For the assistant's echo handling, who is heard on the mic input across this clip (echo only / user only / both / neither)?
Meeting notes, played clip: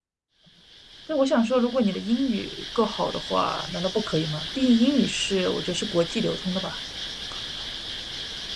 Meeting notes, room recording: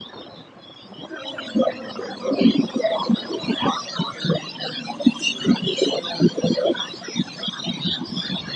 echo only